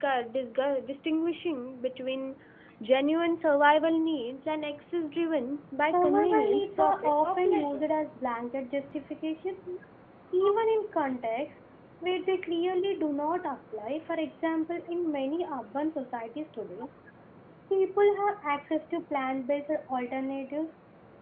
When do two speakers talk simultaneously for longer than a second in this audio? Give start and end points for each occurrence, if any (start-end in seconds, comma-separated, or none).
5.8-7.8